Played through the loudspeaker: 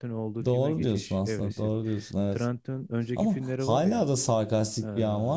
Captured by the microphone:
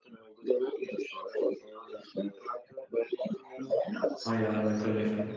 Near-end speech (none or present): present